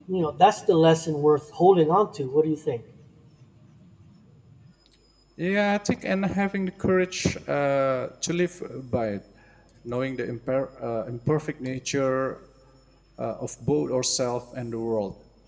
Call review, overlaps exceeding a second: none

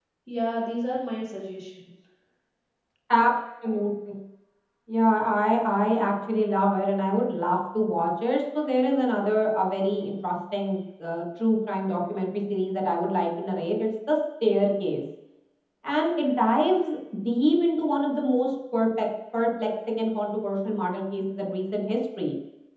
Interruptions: none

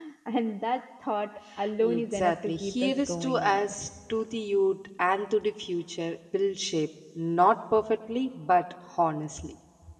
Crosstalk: present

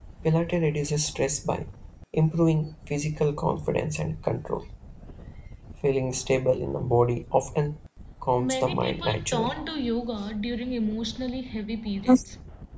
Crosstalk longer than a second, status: present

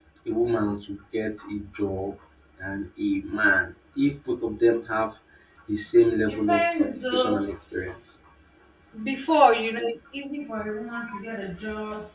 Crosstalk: present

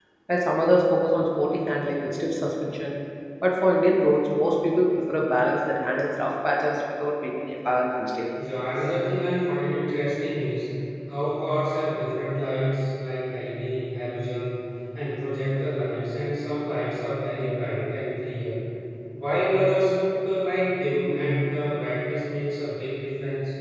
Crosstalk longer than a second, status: none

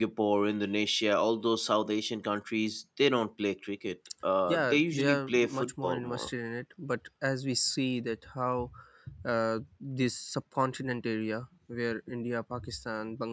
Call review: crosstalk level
present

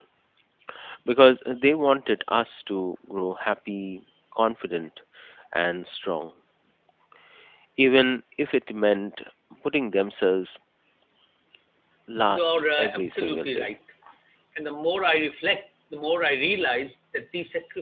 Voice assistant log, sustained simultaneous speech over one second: present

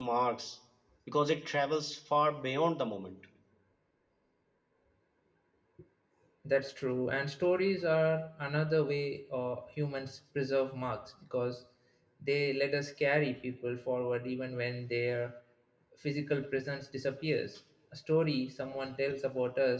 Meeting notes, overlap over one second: none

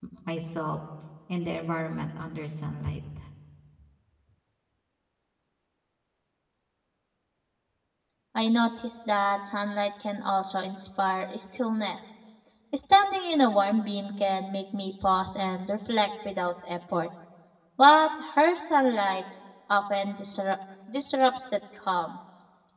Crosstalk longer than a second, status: none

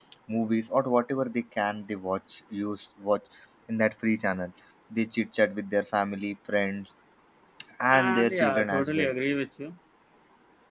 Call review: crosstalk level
present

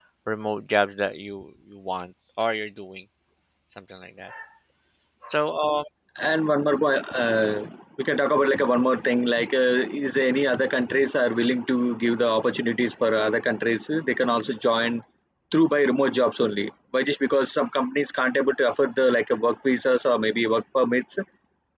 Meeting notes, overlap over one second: none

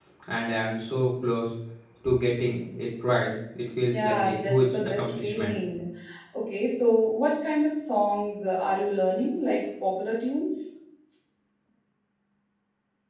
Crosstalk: present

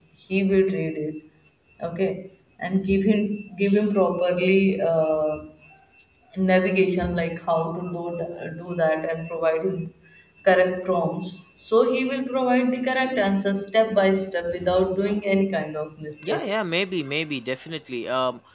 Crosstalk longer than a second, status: none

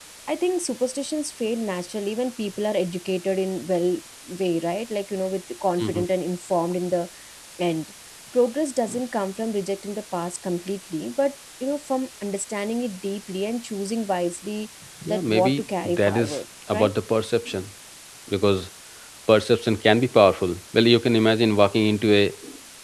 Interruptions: present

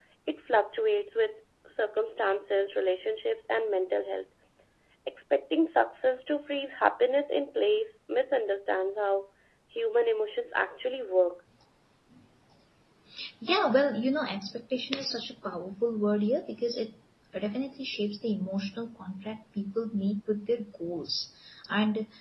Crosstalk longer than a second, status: none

